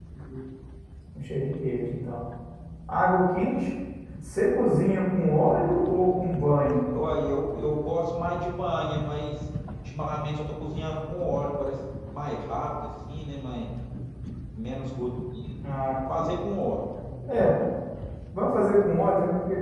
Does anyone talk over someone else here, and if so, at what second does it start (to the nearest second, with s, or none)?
none